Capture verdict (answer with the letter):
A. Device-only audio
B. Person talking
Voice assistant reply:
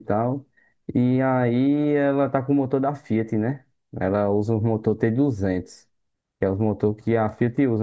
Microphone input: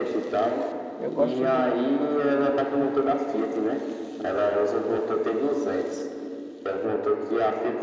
B